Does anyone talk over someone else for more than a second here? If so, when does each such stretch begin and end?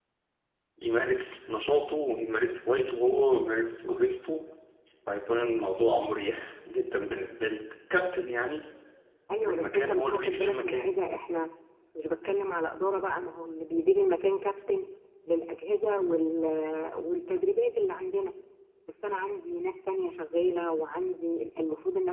9.4-10.9

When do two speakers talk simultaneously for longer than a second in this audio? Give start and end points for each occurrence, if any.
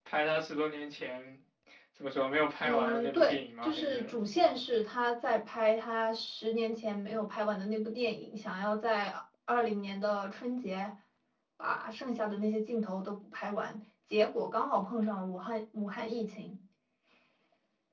2.6-4.1

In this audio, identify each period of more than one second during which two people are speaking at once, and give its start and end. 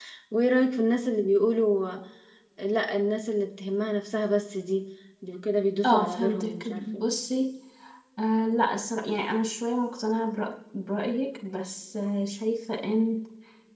5.8-7.1

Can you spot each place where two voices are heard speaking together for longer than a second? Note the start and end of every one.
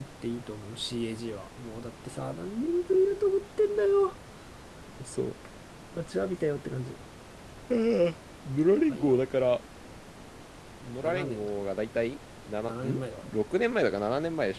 none

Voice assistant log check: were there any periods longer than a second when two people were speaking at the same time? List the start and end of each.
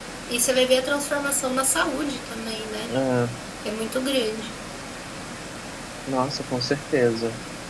none

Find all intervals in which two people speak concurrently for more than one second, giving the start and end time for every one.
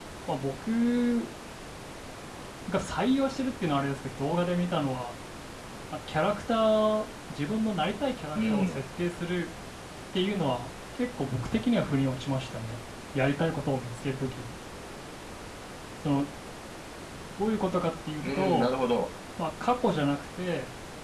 none

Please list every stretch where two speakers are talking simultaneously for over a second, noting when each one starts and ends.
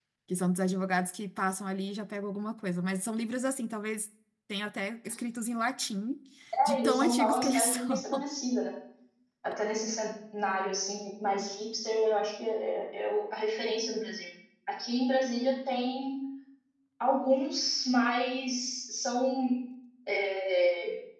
6.7-8.0

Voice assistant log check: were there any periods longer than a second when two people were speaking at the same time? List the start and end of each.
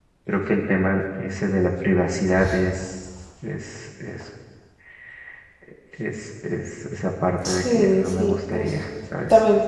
7.4-8.7

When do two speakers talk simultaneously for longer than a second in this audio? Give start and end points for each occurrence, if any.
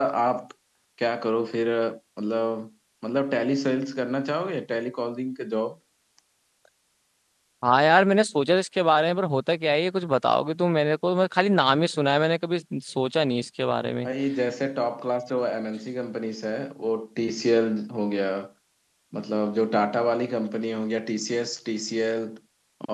none

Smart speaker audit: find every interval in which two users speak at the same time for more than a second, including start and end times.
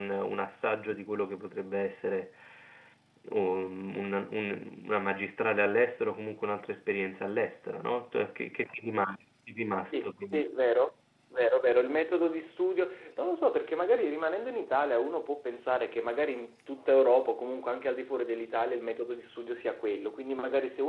none

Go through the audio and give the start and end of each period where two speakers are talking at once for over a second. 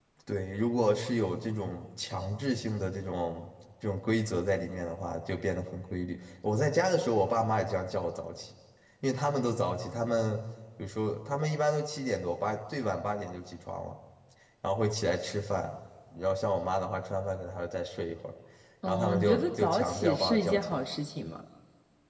18.9-20.8

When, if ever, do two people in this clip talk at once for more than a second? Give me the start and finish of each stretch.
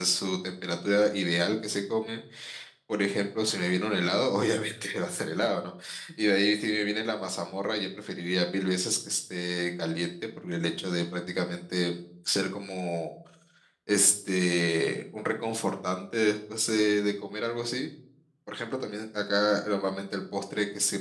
none

